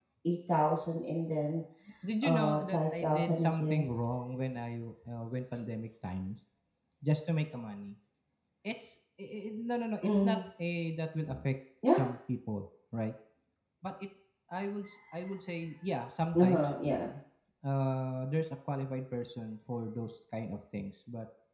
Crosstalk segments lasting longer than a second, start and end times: 2.2-4.1

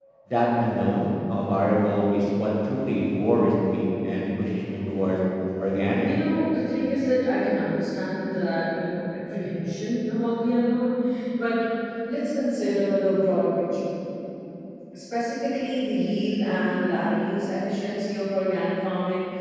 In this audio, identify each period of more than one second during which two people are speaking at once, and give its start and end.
none

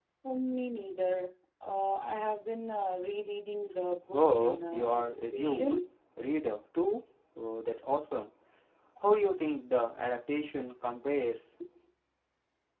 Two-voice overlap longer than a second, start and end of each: 4.1-5.8

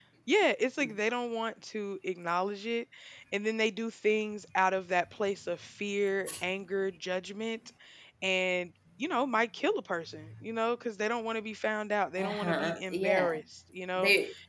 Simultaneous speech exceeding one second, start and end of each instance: 12.2-13.4

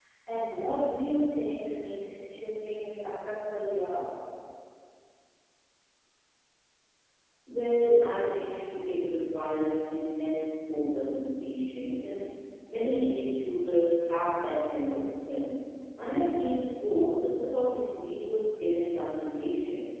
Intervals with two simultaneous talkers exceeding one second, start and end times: none

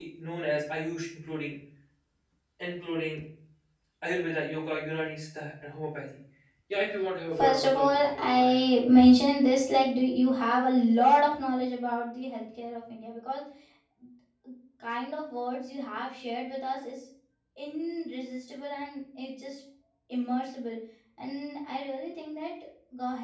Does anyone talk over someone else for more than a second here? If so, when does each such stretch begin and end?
7.4-8.6

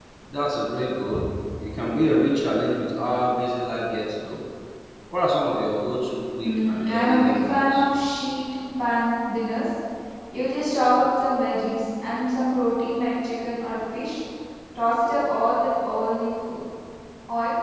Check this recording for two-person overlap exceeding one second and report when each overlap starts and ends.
6.5-7.9

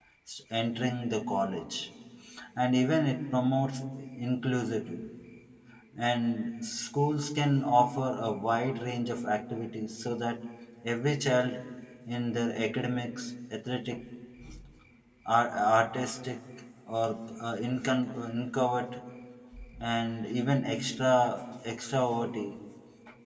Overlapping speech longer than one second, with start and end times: none

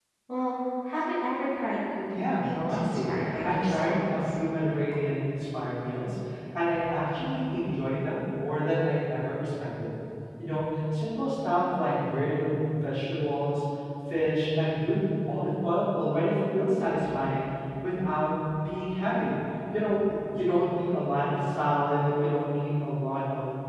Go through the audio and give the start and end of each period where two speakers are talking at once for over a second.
2.1-4.2

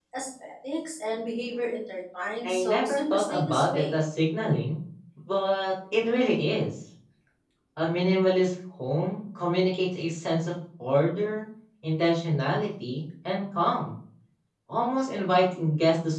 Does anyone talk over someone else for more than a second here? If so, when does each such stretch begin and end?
2.5-3.9

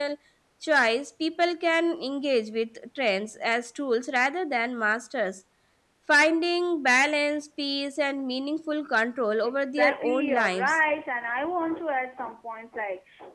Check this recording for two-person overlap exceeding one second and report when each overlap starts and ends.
9.4-10.8

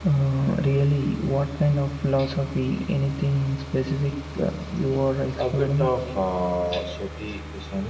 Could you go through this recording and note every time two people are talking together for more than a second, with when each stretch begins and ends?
none

